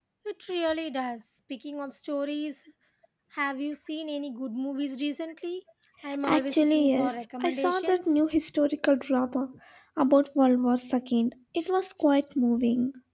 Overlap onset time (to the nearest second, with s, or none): 6 s